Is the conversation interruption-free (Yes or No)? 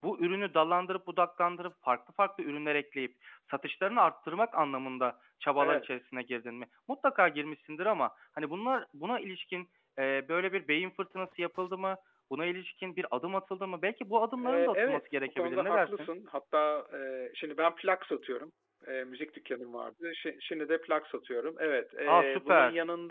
No